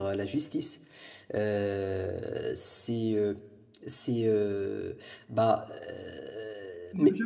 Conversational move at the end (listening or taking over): taking over